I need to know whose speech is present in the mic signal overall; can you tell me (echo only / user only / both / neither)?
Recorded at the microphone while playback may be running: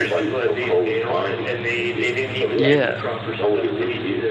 both